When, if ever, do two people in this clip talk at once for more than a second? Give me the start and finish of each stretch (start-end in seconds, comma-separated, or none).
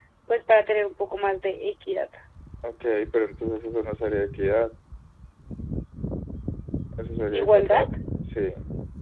none